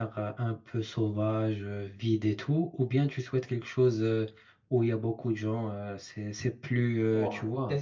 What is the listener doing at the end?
taking over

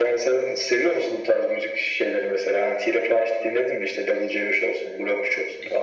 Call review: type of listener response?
taking over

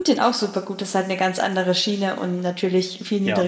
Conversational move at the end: listening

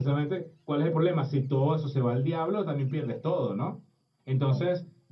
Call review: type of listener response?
listening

